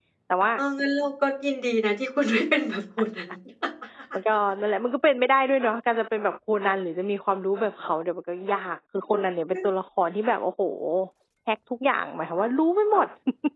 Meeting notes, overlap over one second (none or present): none